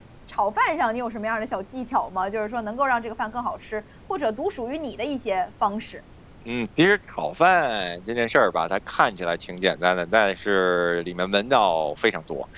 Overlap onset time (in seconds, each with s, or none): none